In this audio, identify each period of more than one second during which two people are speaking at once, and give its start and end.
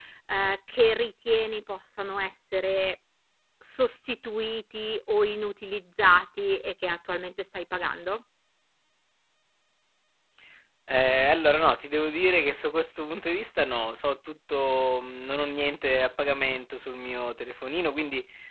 none

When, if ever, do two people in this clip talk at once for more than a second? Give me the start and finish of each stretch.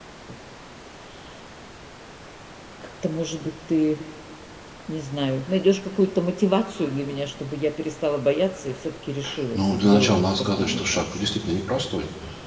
9.5-11.0

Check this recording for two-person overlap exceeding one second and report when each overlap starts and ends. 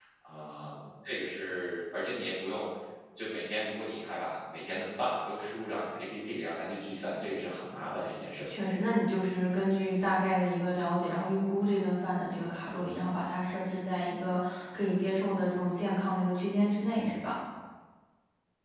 none

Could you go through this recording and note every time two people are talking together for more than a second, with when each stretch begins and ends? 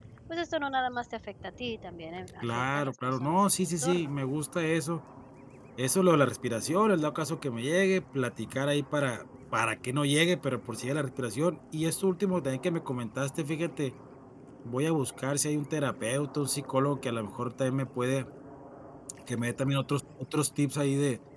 2.4-4.1

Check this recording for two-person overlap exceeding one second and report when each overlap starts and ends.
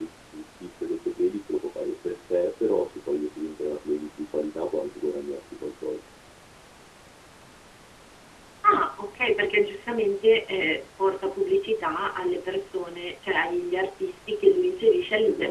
none

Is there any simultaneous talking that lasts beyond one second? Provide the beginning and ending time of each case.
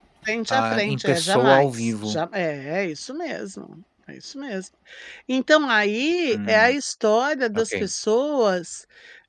0.5-2.2

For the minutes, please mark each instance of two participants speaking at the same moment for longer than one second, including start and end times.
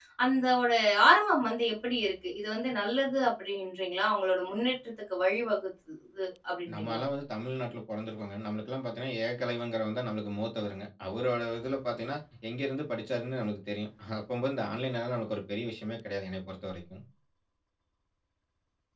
none

